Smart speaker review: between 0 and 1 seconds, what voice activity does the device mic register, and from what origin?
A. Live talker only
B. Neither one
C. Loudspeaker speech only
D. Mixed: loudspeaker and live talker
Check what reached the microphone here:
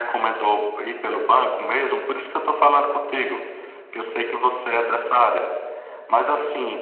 C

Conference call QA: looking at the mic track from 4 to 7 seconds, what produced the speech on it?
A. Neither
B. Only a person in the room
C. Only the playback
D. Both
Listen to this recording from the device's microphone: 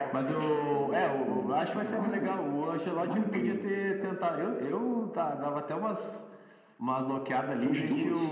C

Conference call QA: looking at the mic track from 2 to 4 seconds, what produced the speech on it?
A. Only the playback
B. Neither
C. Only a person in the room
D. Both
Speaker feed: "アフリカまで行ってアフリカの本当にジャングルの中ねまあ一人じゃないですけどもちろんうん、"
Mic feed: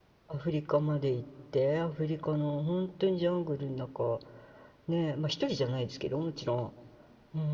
A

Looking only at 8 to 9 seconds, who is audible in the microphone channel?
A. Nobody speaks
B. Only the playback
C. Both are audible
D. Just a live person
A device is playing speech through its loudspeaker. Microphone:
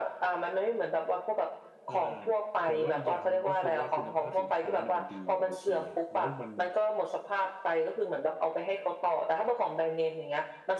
B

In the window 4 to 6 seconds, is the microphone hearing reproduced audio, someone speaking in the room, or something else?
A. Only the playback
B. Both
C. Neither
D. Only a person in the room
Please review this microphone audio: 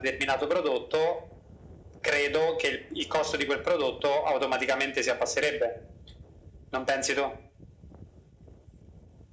A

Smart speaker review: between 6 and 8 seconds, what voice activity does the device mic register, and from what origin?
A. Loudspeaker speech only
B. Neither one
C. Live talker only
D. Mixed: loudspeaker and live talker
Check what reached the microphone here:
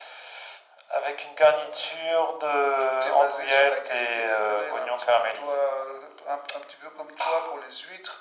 A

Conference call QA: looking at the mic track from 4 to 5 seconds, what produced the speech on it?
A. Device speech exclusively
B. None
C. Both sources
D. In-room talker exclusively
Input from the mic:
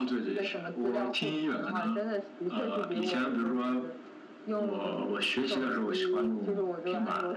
A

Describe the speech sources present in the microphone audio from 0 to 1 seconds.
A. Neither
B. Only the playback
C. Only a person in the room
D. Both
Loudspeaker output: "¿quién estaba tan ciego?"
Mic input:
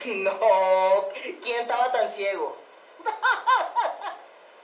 B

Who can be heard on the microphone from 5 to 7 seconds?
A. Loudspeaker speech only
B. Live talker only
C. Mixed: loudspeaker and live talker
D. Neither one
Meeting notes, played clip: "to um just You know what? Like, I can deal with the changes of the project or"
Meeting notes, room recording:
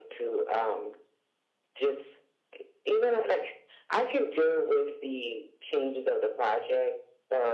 A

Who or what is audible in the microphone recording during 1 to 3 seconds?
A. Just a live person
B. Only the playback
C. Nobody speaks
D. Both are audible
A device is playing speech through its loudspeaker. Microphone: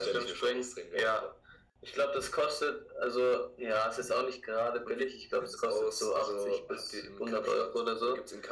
B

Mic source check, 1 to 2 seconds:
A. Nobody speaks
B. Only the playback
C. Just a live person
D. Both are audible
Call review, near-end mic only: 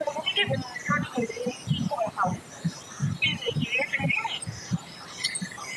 B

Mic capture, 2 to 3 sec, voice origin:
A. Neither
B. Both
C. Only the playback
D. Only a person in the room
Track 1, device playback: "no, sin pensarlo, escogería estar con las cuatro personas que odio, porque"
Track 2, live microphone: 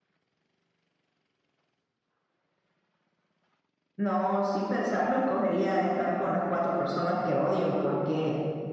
A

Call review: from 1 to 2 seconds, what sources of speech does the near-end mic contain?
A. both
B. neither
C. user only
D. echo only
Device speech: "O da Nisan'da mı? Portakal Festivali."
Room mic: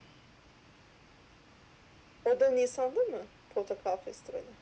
B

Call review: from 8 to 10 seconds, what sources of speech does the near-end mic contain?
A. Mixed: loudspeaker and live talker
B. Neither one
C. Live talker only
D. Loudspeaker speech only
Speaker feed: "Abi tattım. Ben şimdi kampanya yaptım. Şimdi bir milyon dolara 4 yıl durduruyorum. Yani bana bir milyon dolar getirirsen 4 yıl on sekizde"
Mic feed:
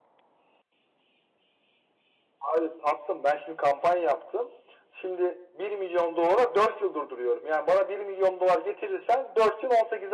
D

